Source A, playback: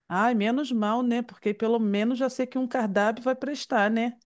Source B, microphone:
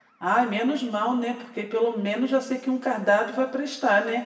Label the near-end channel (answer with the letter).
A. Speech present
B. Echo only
B